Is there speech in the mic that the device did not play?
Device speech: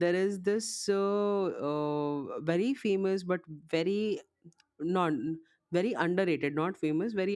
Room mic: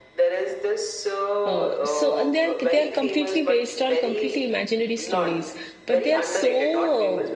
Yes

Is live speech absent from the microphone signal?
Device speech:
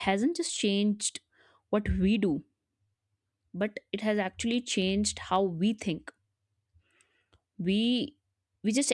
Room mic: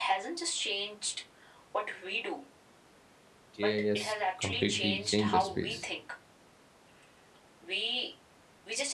No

